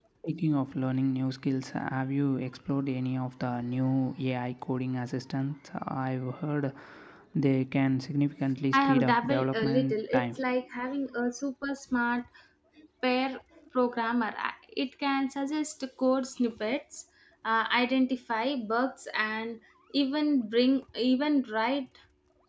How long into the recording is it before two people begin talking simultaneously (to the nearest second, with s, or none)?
9 s